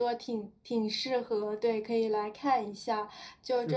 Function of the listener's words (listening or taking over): listening